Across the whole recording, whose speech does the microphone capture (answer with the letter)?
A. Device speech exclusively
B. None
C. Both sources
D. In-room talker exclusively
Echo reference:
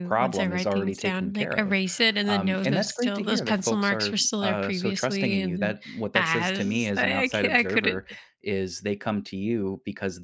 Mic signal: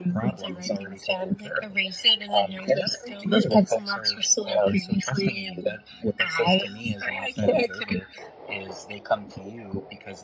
A